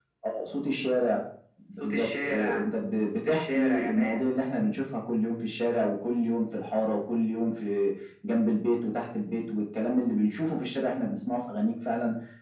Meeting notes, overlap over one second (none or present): present